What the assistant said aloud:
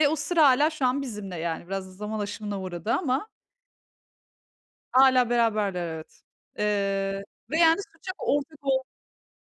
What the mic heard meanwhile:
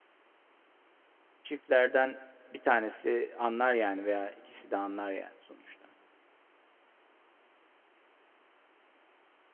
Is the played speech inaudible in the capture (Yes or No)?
Yes